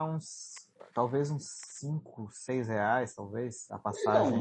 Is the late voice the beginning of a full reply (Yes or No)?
Yes